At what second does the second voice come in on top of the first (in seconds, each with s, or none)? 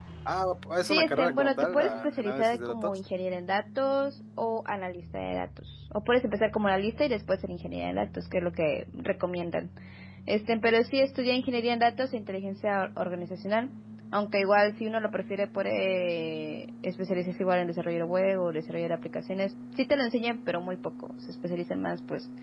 0.8 s